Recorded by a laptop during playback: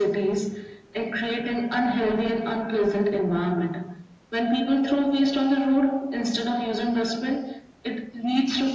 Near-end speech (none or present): none